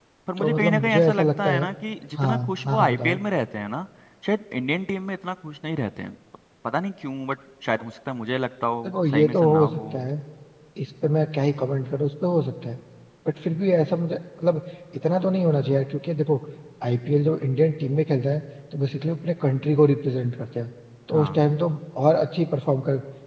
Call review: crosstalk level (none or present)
present